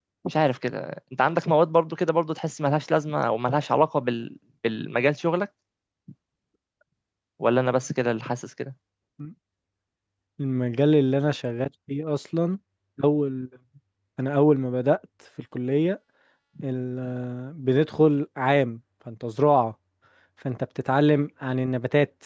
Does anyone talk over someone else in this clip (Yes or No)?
No